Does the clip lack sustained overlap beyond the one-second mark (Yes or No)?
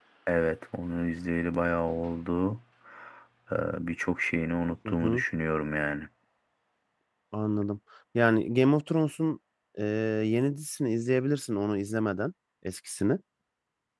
Yes